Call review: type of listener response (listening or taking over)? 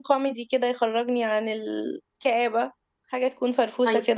taking over